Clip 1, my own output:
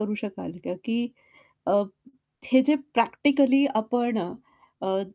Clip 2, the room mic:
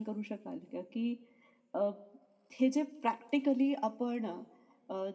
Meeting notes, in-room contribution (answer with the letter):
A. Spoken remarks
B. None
B